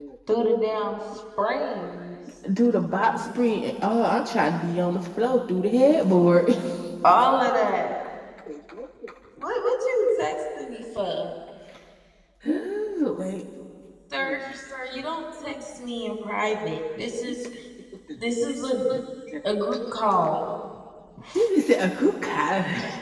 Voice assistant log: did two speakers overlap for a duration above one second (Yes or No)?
No